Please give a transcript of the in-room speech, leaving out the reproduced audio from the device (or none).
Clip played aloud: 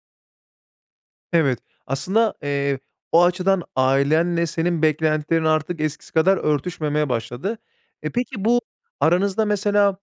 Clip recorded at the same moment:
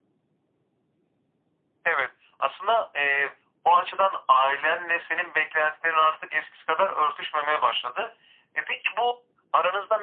none